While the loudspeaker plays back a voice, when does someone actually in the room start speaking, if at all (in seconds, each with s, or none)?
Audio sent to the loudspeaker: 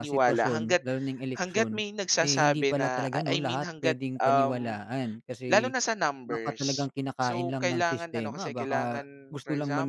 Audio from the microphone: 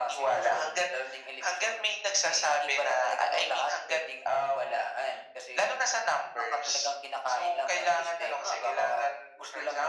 none